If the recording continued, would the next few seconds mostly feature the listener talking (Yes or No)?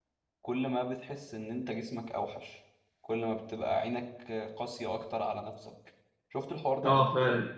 Yes